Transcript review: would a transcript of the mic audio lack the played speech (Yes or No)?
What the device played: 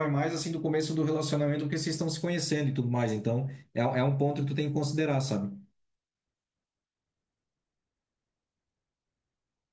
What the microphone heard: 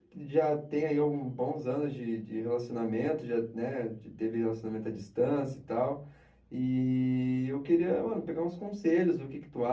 Yes